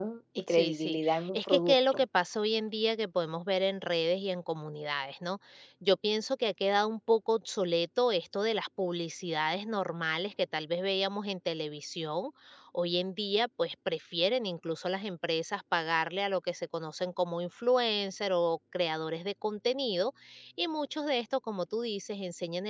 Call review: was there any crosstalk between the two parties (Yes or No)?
Yes